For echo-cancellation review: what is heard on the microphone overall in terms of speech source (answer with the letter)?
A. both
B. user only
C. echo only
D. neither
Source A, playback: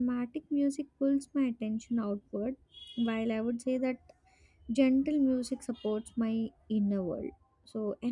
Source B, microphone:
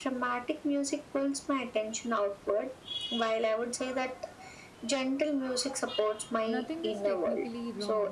A